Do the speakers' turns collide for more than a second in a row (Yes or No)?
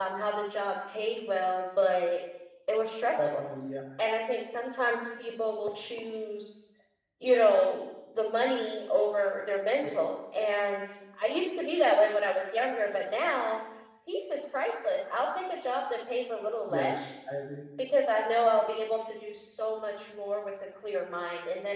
No